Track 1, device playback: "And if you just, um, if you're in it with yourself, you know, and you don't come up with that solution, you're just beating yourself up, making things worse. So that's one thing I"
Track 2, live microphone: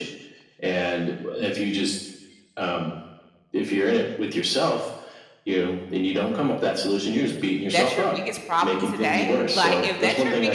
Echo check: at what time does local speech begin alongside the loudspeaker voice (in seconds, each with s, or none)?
7.7 s